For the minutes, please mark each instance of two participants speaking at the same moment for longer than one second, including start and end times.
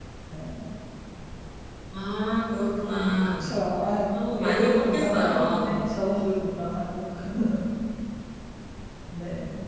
4.1-5.8

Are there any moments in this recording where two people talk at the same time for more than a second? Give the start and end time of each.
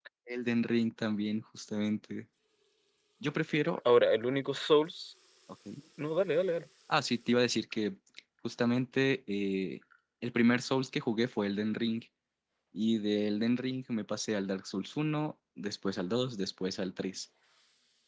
none

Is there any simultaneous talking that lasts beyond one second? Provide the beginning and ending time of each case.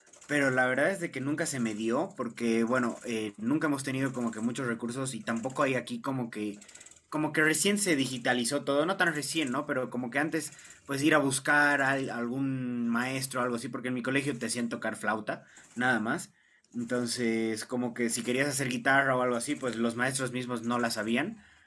none

